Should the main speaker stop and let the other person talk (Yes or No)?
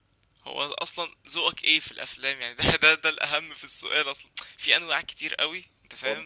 No